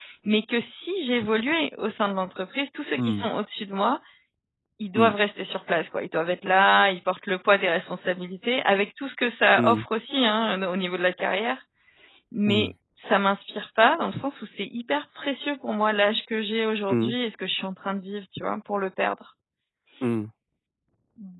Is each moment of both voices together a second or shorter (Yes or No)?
Yes